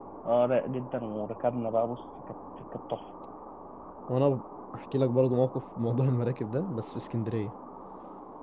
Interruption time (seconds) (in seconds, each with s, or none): none